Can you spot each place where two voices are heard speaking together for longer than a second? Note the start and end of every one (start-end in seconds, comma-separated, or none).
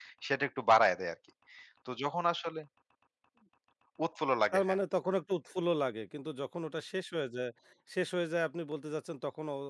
none